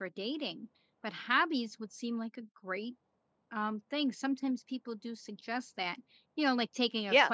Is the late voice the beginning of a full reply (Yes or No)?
No